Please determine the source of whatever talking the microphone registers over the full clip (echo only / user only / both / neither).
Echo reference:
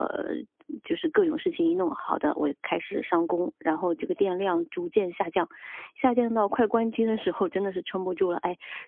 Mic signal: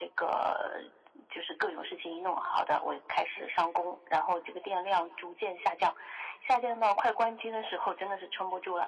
echo only